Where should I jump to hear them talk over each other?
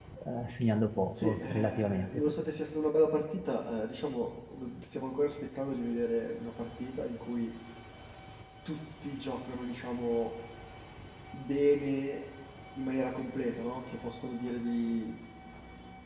1 s

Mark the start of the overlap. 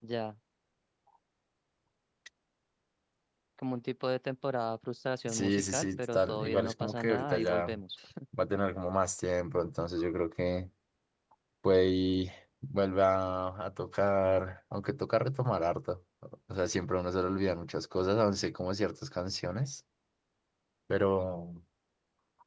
5 s

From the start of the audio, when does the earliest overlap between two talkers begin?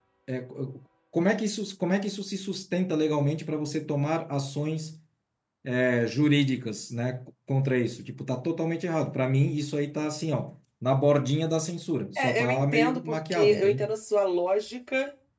12 s

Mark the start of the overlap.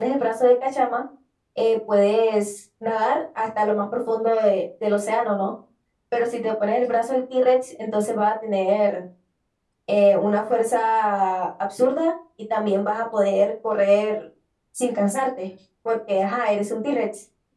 none

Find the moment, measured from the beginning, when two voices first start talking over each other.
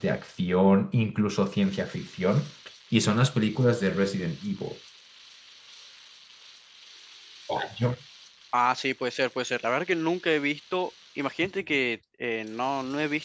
none

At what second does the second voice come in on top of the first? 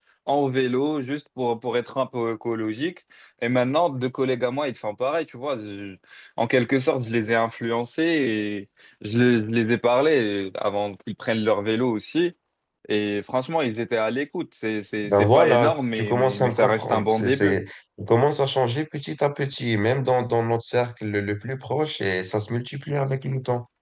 15 s

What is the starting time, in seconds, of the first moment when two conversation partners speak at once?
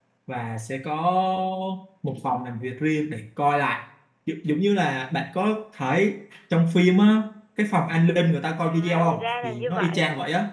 9 s

